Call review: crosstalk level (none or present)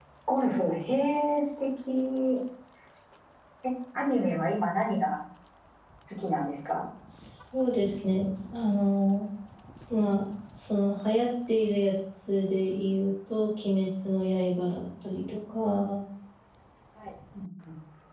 none